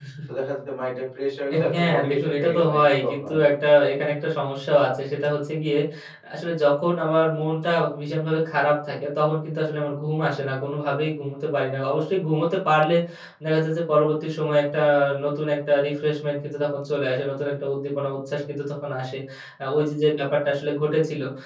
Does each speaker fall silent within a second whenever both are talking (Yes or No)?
No